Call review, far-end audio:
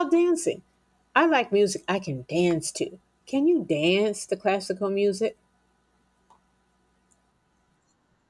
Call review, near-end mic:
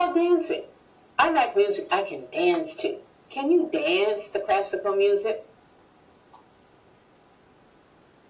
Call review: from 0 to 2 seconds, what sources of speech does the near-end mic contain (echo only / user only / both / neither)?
echo only